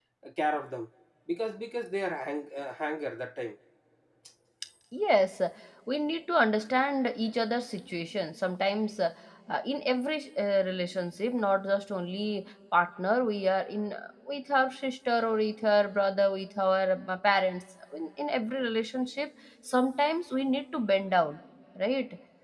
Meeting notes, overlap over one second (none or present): none